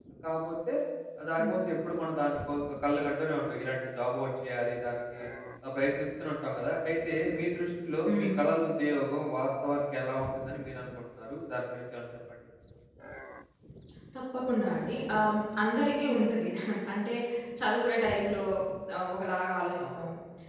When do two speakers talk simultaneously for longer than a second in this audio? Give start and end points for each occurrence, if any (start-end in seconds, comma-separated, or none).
none